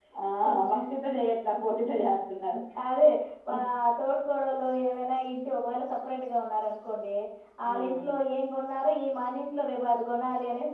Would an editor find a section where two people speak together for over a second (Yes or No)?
No